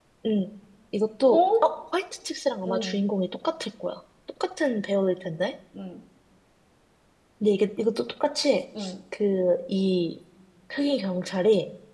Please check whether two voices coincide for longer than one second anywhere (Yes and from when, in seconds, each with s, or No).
No